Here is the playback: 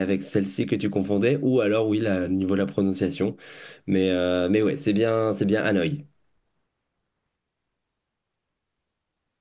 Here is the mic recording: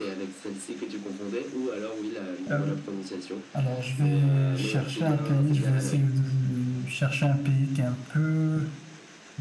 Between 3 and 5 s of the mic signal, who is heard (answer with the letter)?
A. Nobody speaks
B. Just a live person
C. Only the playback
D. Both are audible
D